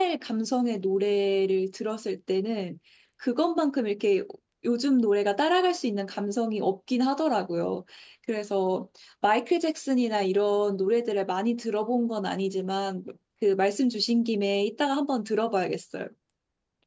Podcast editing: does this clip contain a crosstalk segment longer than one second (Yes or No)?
No